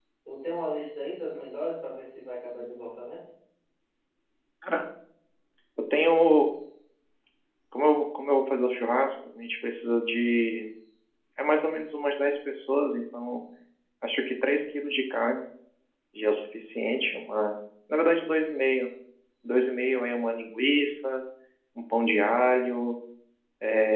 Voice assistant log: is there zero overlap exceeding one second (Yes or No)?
Yes